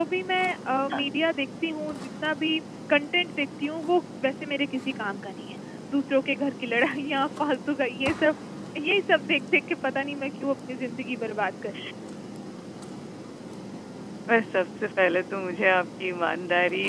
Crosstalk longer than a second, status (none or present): none